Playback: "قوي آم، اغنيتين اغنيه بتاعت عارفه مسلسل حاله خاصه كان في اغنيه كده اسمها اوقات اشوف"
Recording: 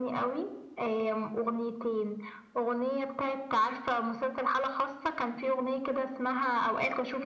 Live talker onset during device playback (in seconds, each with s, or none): none